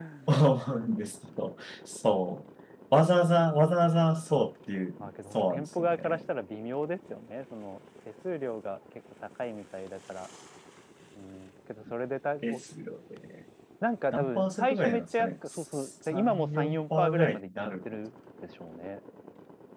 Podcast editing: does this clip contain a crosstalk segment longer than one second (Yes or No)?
Yes